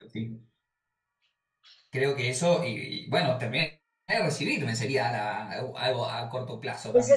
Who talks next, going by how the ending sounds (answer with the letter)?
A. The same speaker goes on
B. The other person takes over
B